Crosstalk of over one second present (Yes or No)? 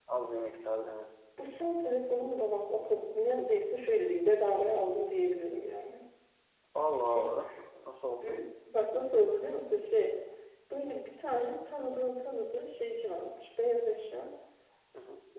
No